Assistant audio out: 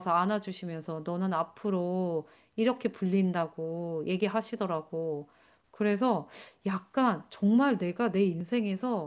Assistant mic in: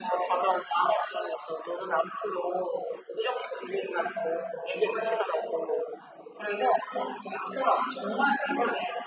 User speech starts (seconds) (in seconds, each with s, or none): none